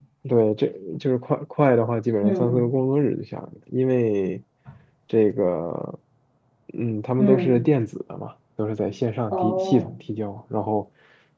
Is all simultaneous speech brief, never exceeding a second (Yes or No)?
Yes